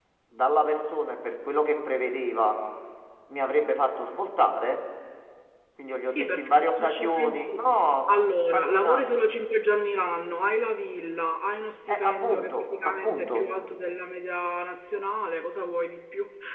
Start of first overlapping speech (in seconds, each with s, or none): 6.0 s